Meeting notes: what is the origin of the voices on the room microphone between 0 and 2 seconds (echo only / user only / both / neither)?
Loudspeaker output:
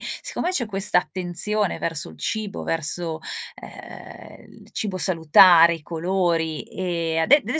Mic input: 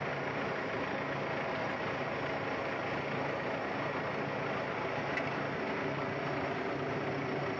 neither